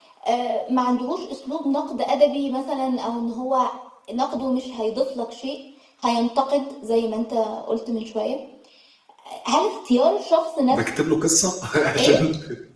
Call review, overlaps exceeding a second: none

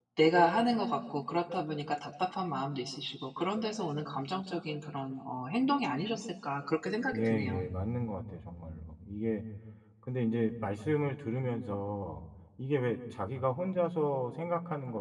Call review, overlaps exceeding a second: none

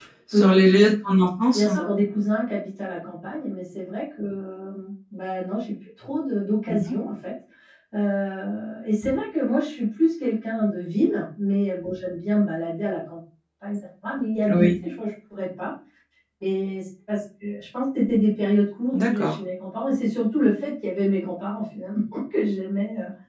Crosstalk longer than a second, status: none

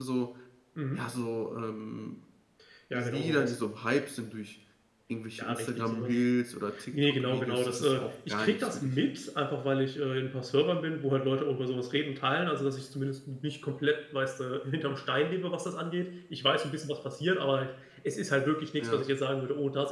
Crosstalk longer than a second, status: present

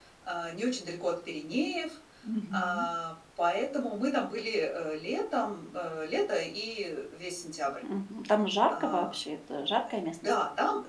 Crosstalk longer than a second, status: none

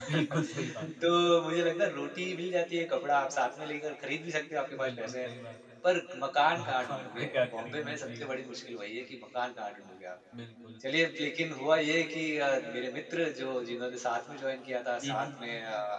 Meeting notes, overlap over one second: present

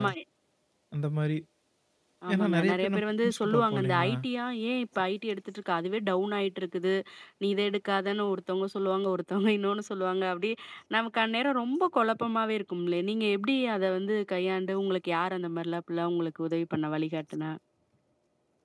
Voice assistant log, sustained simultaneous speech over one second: present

